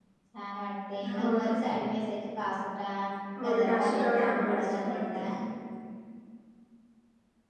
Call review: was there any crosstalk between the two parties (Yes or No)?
Yes